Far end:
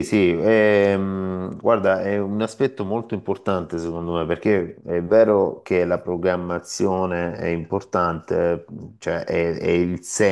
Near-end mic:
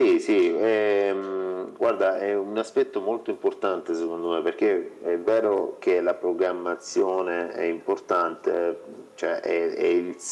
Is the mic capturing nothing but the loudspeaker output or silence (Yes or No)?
Yes